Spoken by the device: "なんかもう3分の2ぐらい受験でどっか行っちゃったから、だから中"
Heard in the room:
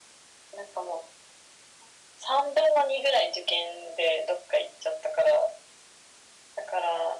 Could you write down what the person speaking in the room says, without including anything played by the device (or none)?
none